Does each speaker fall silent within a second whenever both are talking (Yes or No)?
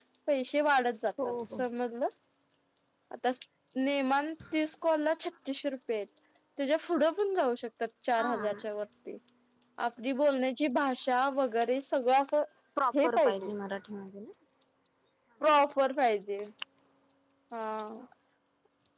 Yes